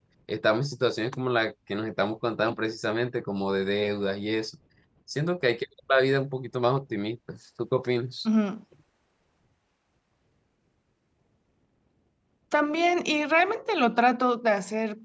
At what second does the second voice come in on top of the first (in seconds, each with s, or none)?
none